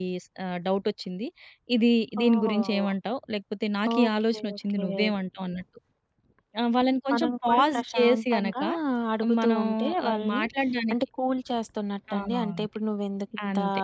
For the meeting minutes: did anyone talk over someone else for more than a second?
Yes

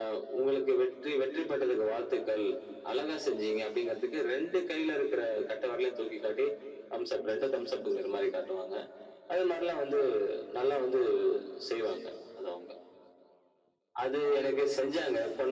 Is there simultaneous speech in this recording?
No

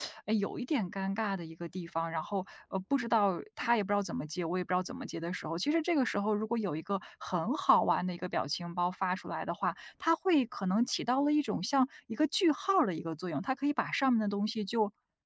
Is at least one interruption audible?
No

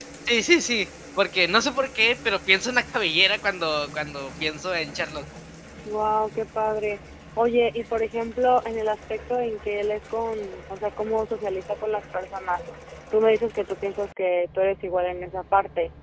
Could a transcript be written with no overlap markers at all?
Yes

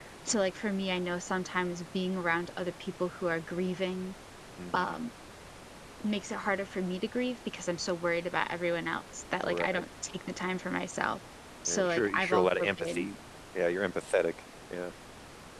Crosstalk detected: Yes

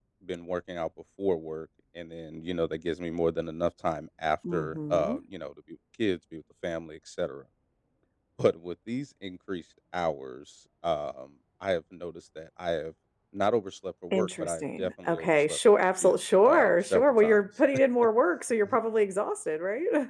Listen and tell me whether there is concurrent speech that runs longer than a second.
Yes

